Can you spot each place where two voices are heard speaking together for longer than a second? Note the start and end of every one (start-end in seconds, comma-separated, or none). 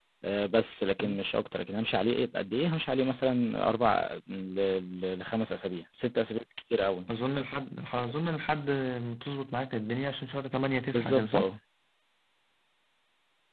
none